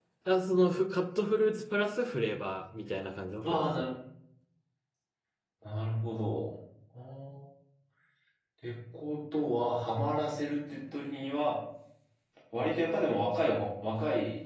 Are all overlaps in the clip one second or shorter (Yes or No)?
Yes